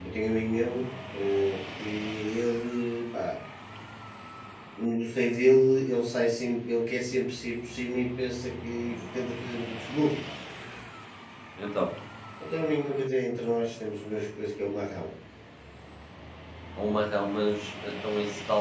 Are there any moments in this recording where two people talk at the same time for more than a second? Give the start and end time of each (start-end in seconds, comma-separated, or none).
none